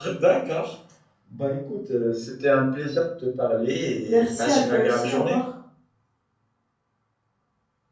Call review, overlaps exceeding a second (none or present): present